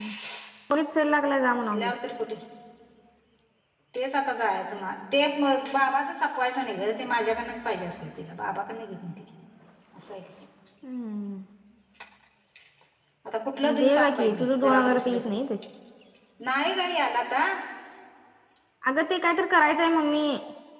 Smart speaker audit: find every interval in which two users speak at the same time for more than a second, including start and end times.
13.8-15.2

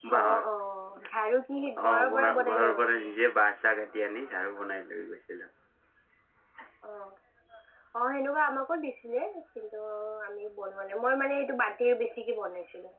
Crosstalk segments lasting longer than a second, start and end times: 1.8-3.1

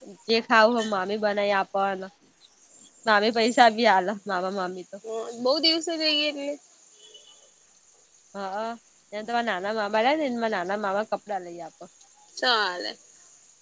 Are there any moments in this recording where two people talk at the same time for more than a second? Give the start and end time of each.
none

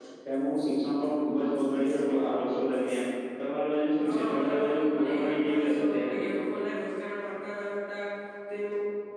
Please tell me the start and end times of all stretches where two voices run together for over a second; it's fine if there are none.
4.0-6.3

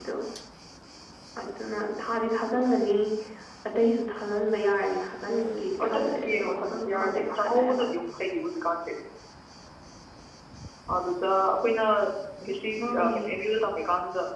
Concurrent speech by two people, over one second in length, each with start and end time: 5.8-7.8

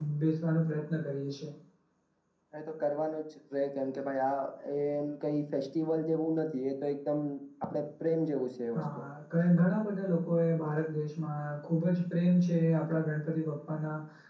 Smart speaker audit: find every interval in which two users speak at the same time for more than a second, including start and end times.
none

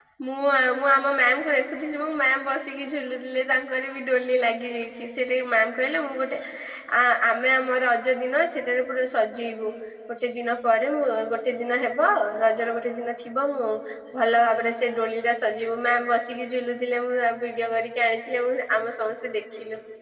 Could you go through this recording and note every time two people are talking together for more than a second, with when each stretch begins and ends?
none

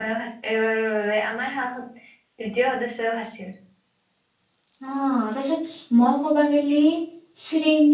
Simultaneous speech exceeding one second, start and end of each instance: none

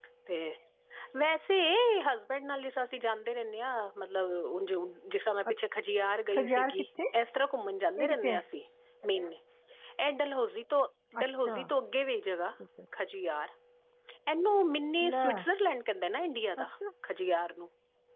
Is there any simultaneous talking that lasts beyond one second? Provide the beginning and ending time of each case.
none

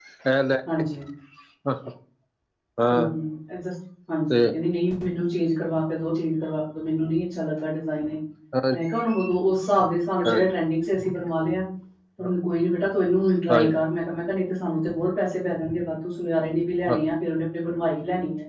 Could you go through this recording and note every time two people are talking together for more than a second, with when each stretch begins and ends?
none

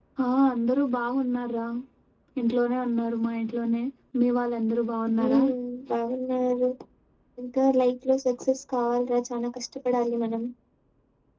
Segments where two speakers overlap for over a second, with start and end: none

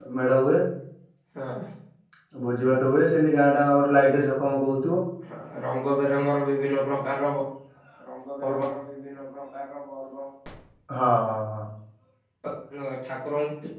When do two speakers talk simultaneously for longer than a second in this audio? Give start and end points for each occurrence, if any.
none

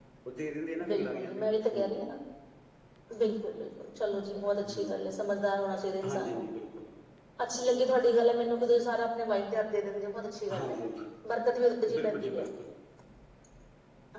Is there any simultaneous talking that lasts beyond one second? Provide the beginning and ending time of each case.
0.9-2.1

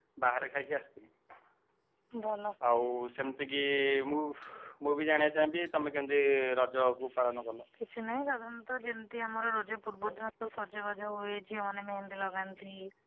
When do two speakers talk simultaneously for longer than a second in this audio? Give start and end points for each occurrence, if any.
none

